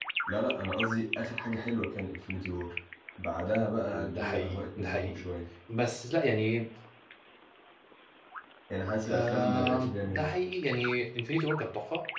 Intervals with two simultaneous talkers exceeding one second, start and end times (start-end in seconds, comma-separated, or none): 3.9-5.2, 9.1-10.3